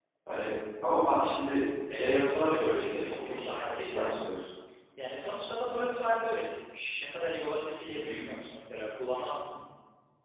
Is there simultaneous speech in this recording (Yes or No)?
Yes